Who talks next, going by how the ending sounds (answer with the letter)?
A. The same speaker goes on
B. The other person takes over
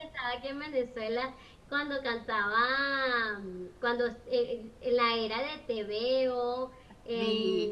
A